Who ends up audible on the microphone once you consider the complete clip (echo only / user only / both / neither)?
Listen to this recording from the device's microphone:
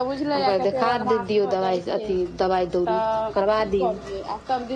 echo only